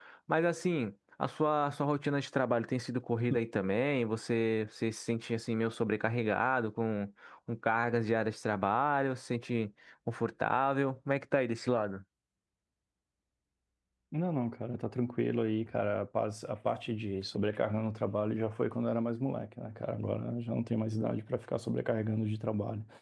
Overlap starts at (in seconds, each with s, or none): none